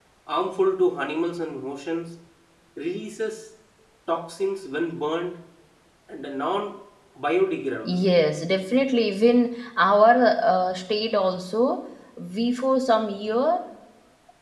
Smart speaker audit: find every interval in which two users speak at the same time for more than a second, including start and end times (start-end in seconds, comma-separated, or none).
none